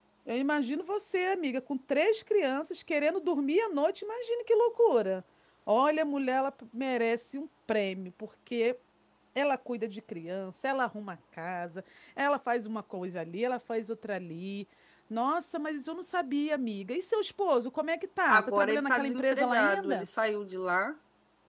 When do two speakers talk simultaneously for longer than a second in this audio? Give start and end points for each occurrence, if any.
18.3-20.1

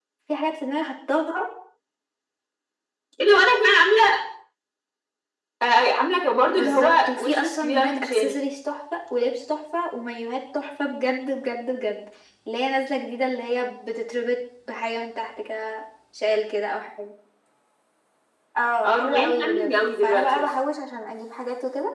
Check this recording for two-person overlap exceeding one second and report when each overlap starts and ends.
6.5-8.4, 18.8-20.5

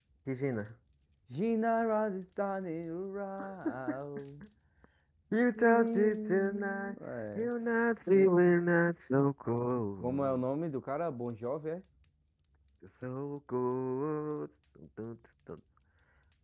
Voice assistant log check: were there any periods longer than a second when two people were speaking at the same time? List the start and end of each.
5.5-7.0

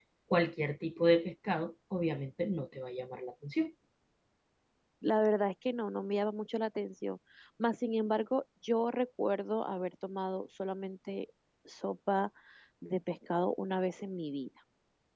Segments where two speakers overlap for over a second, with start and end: none

